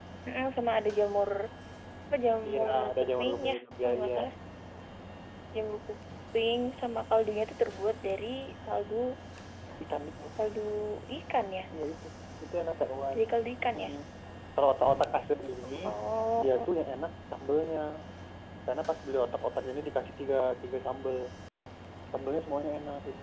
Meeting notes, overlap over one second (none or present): present